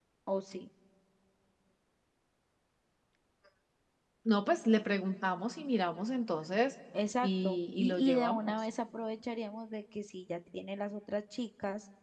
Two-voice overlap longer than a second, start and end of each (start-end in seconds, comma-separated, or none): 7.2-8.5